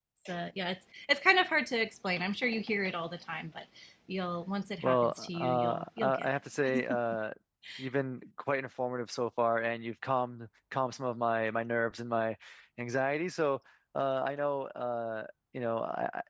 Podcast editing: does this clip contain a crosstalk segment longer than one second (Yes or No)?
Yes